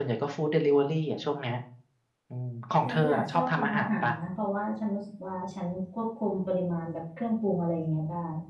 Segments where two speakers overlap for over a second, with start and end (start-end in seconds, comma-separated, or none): 2.8-4.1